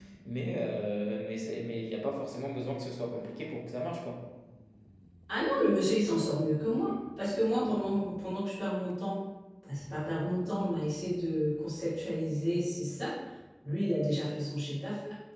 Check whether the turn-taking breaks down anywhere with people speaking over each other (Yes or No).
No